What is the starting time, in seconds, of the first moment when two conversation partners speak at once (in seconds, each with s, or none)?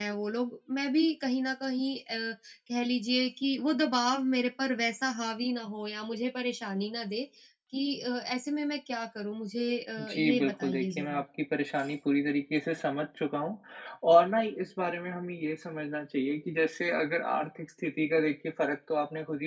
10.0 s